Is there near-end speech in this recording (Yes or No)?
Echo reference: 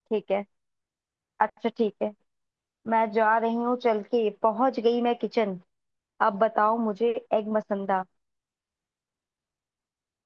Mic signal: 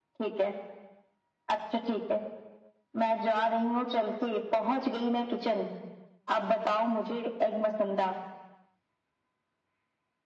No